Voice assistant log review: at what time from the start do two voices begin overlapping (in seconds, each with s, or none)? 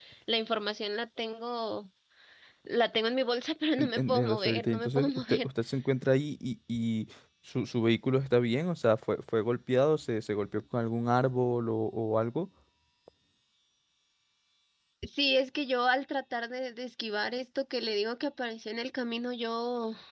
3.8 s